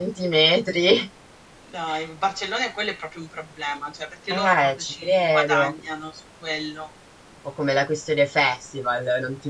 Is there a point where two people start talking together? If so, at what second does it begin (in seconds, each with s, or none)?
4.3 s